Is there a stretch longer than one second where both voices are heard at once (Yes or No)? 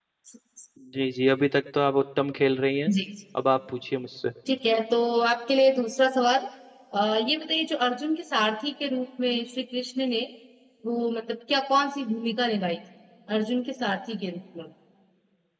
No